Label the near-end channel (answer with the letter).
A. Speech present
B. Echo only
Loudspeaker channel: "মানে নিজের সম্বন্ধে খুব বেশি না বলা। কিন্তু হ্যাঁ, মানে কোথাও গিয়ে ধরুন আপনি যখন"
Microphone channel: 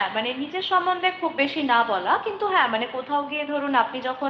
B